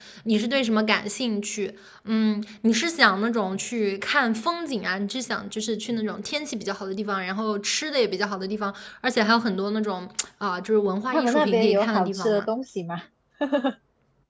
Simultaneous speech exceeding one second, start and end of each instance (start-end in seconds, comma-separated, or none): 11.1-12.5